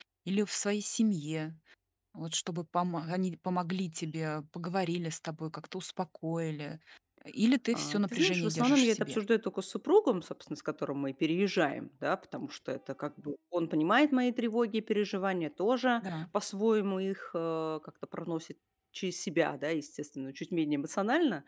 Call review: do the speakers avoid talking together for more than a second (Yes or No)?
No